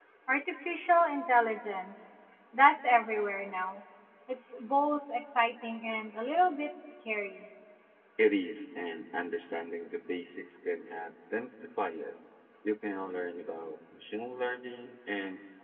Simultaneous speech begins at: none

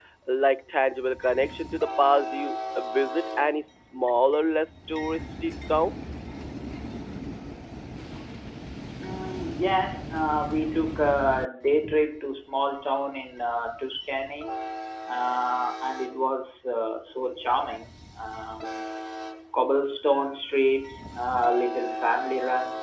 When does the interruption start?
none

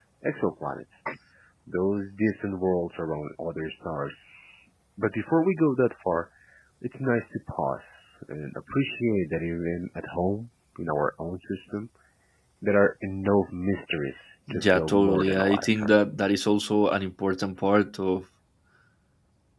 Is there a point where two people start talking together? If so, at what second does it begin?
14 s

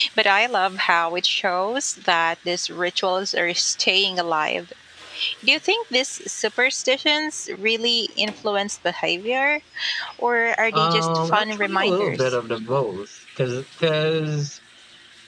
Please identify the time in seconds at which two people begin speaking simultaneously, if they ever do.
11 s

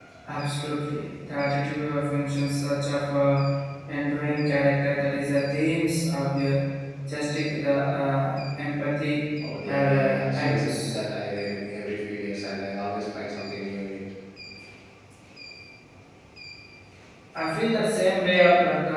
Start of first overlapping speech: 10 s

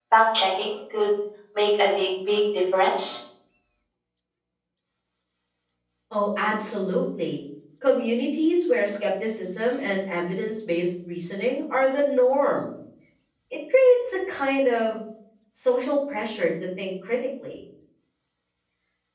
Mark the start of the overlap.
none

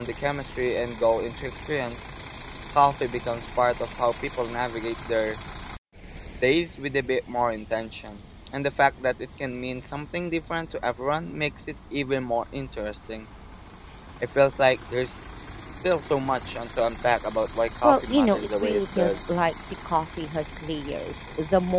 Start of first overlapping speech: 18 s

